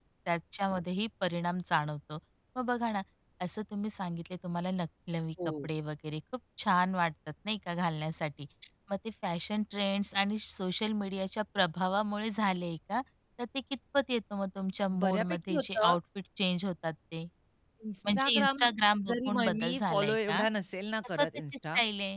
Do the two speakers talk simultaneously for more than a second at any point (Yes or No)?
Yes